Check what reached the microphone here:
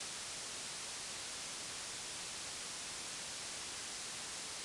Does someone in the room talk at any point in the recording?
No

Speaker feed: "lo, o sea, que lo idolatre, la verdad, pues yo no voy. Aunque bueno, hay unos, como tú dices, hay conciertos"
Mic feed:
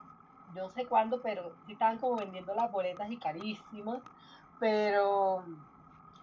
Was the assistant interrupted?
Yes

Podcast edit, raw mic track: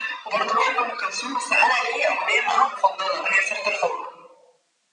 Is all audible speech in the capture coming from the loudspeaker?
Yes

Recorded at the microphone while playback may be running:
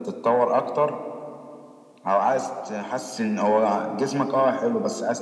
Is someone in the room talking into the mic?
No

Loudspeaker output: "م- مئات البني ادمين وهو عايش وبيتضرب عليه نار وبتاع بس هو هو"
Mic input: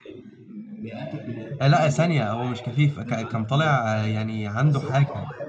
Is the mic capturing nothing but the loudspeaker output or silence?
No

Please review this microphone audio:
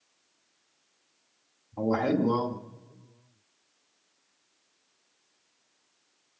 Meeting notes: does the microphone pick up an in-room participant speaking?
Yes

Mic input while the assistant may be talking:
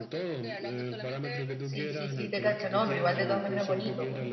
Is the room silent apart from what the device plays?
No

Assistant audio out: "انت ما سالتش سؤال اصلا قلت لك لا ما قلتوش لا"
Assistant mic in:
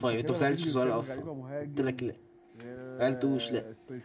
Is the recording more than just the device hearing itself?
Yes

